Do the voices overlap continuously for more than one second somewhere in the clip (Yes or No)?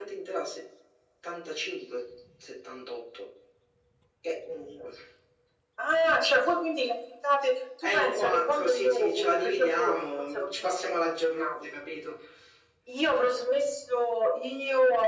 Yes